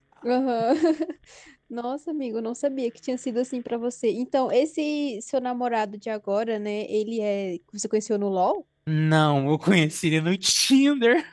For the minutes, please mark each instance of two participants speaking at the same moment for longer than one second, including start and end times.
none

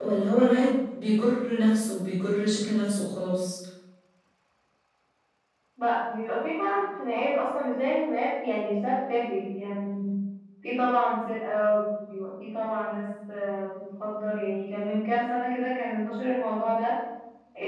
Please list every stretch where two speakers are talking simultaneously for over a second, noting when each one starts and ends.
none

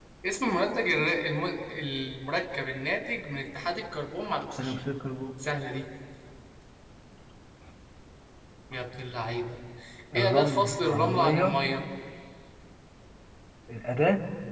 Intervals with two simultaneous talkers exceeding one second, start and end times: 10.2-11.5

